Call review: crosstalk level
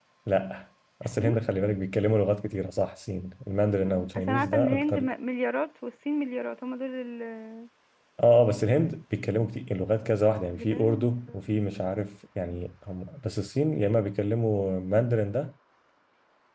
present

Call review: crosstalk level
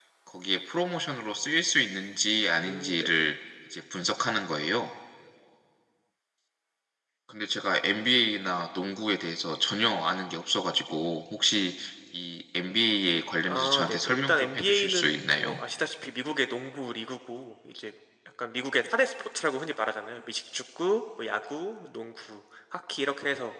present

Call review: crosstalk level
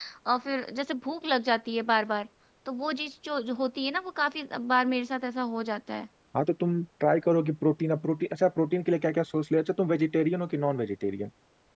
none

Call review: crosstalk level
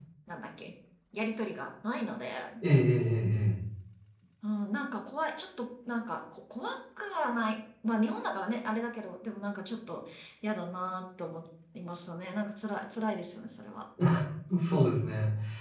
none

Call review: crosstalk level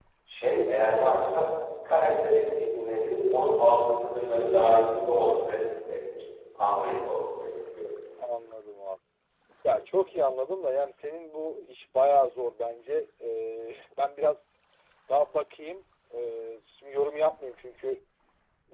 none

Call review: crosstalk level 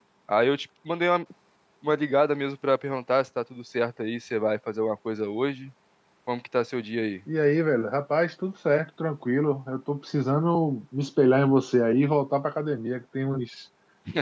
none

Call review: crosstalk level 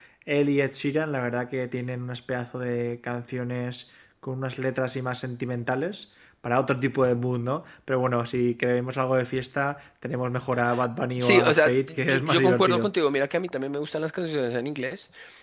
present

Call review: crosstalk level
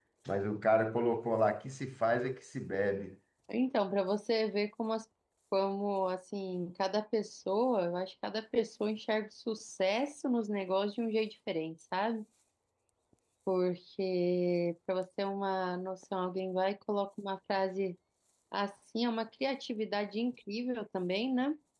none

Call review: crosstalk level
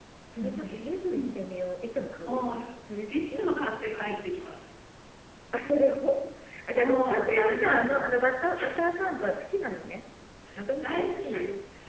present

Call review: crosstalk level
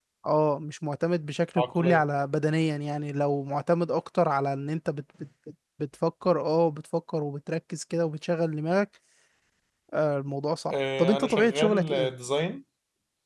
present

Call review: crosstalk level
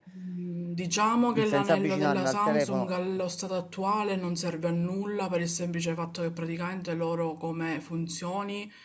present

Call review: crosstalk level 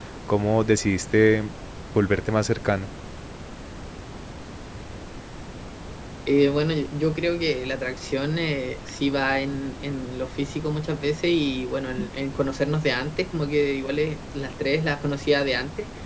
none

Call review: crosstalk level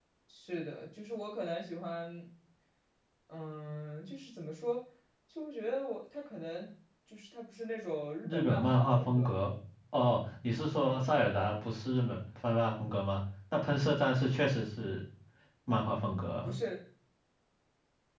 present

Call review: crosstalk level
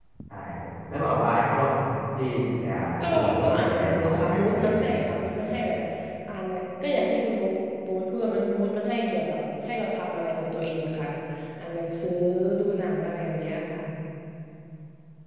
present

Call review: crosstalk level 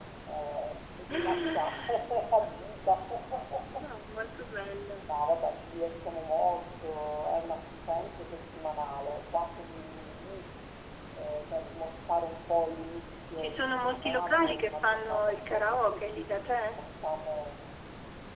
present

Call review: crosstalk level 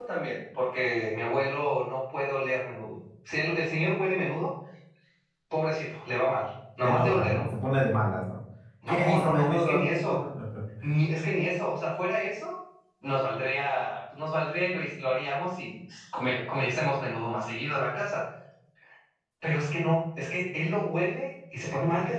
present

